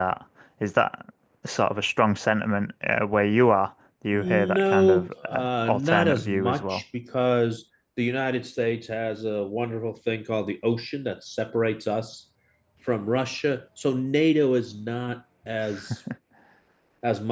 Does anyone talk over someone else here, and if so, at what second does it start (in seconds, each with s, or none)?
4.1 s